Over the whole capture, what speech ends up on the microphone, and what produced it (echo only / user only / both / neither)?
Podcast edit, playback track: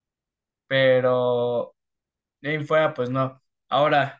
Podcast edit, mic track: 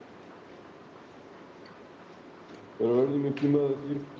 user only